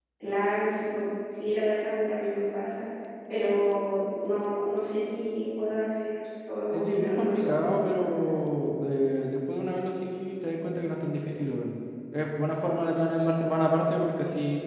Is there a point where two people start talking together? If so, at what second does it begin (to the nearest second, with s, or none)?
7 s